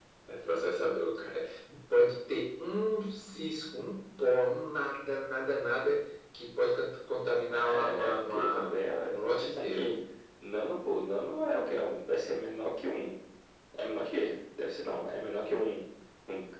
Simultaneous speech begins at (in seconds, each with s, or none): 7.5 s